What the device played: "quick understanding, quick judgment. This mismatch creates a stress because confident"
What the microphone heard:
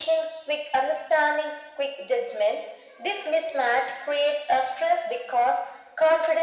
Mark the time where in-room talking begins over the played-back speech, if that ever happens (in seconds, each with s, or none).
none